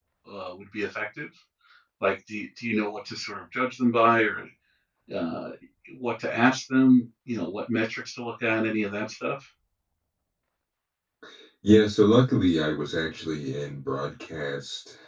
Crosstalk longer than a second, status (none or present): none